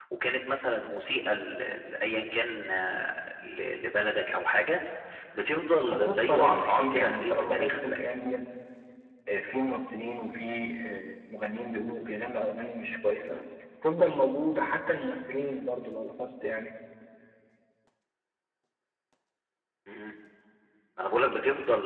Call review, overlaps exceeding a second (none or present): present